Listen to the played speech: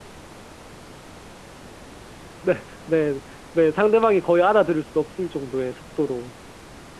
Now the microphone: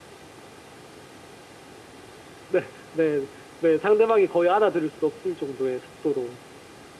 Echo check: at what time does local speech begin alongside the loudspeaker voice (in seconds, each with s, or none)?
none